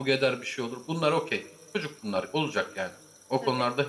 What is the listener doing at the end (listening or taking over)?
listening